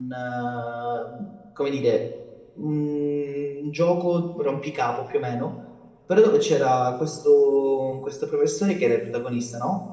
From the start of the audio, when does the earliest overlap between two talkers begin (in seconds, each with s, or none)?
none